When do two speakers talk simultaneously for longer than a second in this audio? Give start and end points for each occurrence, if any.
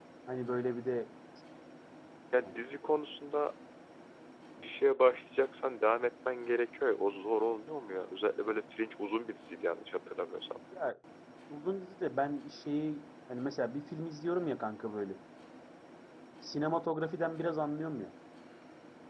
none

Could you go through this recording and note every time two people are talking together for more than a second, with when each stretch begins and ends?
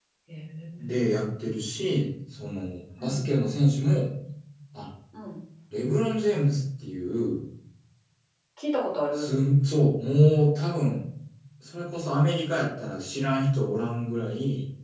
none

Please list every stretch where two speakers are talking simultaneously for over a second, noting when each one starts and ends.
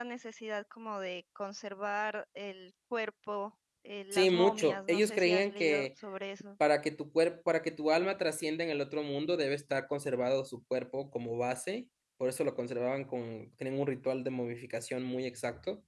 4.1-5.9

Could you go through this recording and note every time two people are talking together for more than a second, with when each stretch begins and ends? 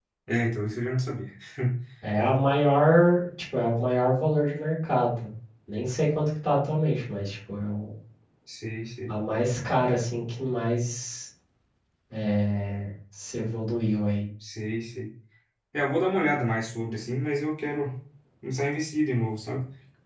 none

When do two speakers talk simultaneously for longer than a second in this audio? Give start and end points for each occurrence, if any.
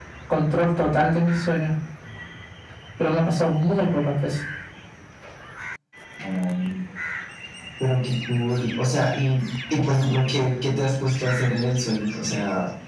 none

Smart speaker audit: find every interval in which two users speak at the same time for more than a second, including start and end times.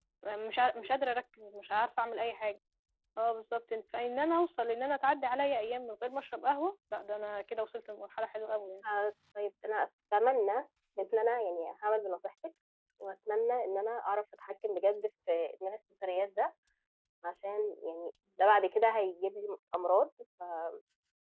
none

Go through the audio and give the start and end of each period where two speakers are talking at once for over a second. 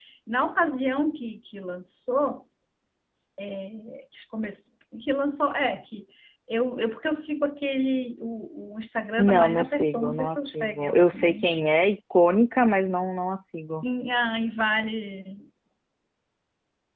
9.2-11.4

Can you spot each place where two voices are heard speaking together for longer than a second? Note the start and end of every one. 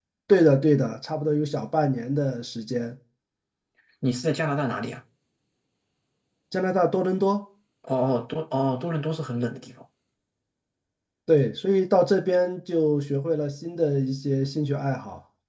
none

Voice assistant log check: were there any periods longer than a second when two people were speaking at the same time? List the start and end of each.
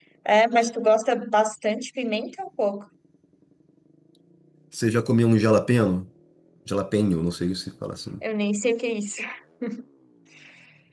none

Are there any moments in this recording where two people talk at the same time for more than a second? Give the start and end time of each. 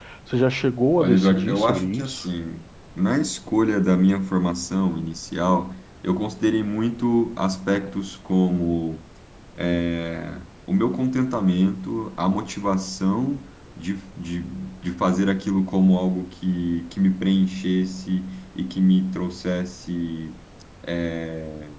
1.0-2.2

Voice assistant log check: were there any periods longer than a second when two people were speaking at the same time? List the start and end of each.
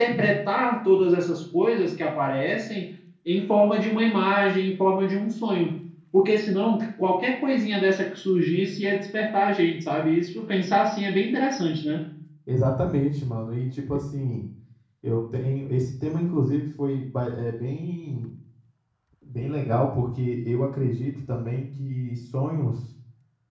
none

